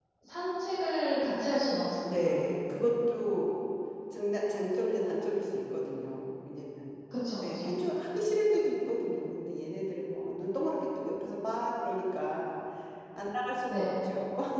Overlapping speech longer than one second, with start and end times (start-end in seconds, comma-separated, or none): none